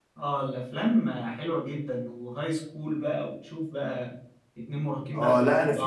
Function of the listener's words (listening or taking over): taking over